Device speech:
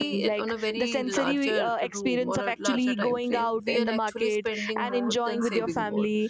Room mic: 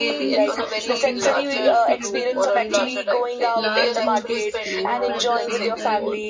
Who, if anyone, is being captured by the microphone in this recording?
both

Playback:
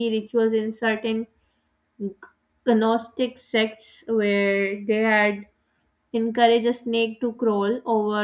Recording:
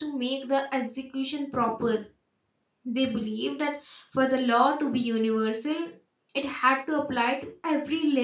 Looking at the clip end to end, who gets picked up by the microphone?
user only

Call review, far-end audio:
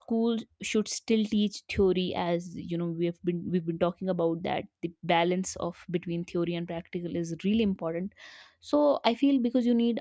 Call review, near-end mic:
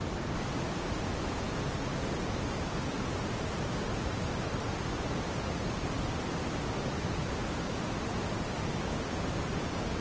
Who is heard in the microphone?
neither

